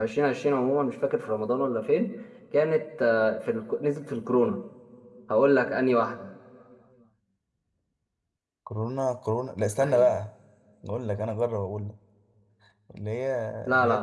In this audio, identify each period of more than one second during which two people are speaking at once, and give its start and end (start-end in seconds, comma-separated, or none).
none